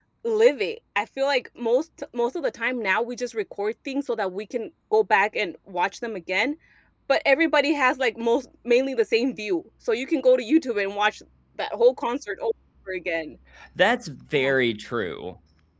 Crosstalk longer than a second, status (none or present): none